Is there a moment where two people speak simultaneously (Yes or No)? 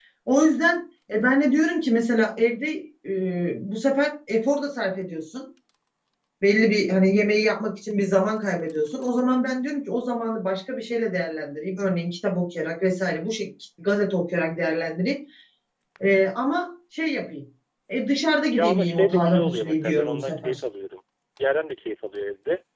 Yes